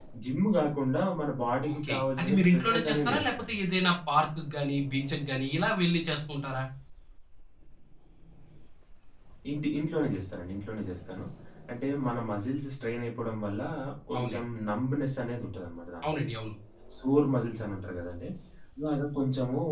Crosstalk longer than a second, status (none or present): present